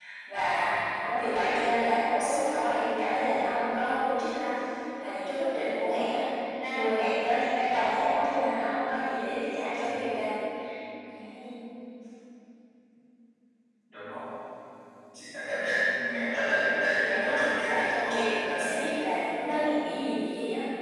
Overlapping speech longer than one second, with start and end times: 17.0-18.6

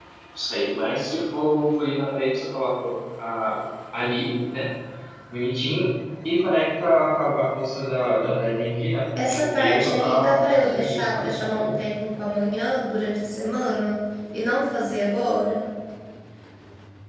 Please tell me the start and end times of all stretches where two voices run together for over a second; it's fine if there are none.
9.2-11.7

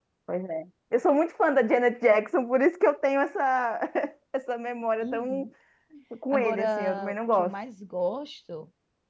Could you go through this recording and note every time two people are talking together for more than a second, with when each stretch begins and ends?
6.3-7.5

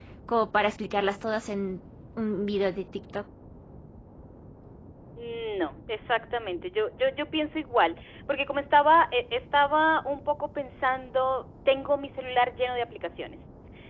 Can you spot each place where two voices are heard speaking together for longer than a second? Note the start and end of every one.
none

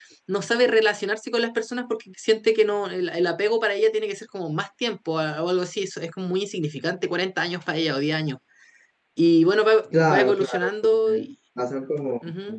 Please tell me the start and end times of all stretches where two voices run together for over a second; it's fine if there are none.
9.9-11.3

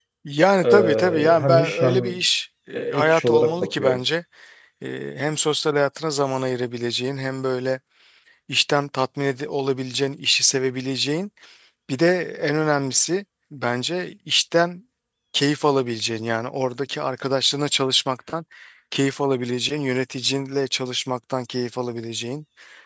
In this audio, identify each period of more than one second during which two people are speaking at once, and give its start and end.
0.6-2.2, 2.7-4.0

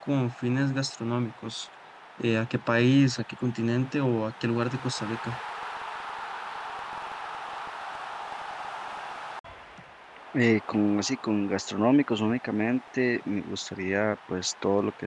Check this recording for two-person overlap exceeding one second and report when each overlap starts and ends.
none

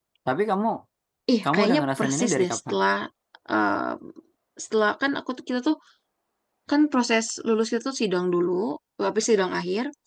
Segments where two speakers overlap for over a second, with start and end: 1.4-2.7

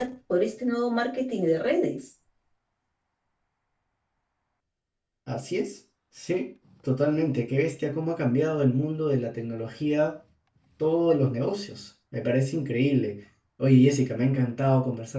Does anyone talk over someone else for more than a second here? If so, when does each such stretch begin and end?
none

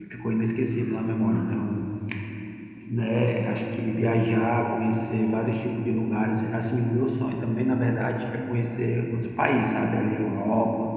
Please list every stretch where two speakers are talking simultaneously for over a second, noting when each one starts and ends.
none

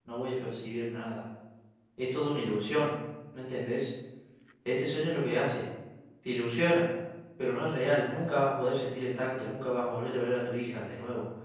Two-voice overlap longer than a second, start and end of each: none

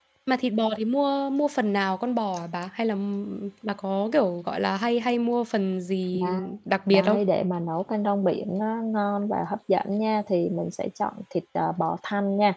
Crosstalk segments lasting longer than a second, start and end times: none

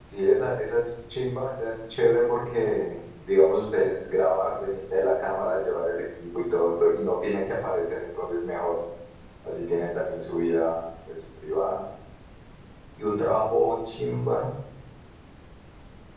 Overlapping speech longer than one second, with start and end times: none

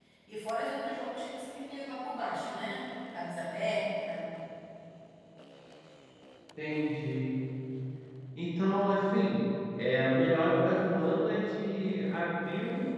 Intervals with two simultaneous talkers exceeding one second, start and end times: none

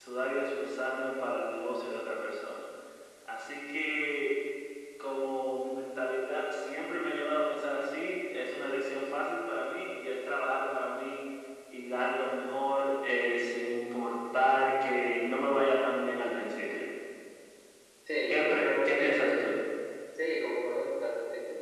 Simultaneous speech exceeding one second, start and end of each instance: 18.3-19.5

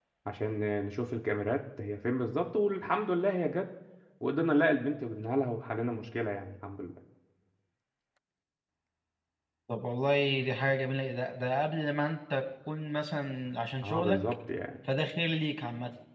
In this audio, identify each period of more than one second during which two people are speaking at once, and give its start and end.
none

